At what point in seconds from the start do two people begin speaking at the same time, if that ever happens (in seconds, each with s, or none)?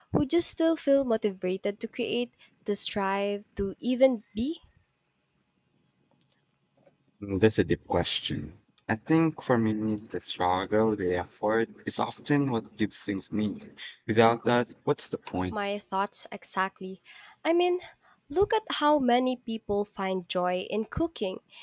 none